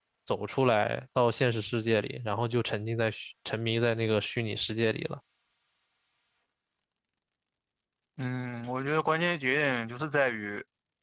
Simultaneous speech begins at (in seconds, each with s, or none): none